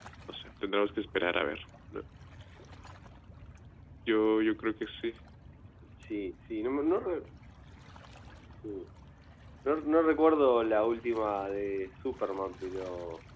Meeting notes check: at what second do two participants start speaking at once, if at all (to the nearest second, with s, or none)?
none